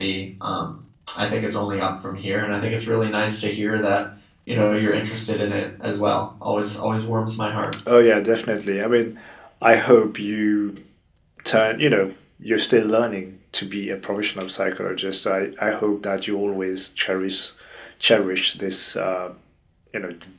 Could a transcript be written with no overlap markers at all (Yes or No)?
Yes